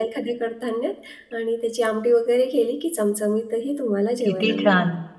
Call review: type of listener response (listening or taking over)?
taking over